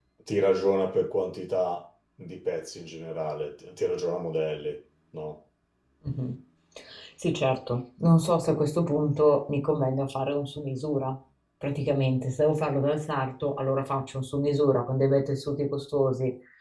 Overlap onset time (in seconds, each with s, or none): none